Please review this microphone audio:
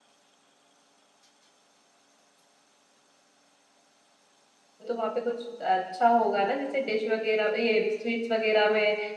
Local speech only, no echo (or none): तो वहाँ पे कुछ अच्छा होगा ना जैसे डिश वगैरह ये स्वीट्स वगैरह में